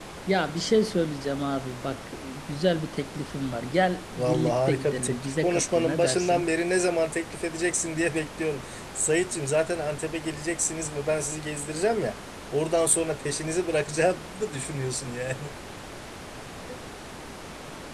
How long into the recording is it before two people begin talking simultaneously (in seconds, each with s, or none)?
4.2 s